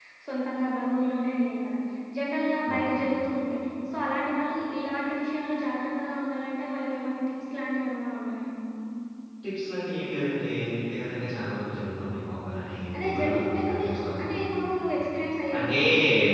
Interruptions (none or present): present